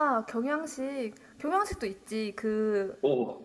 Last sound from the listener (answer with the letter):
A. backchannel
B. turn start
A